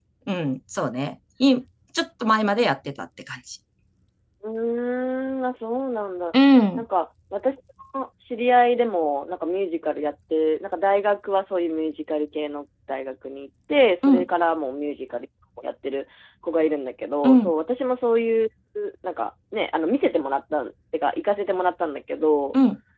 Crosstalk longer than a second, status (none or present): none